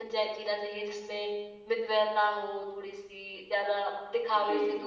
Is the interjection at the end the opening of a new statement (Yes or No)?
No